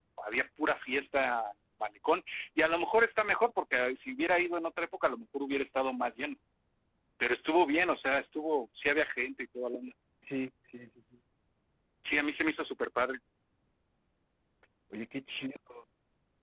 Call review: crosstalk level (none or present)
none